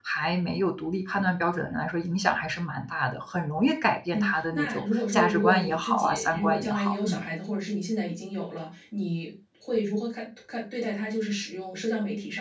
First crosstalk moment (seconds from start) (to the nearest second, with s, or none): 4 s